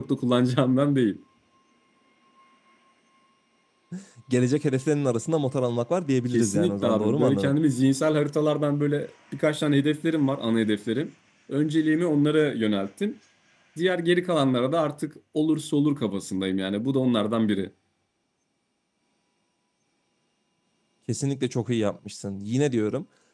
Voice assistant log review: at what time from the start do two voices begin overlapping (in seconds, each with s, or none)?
6.3 s